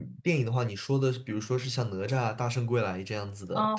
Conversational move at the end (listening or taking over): taking over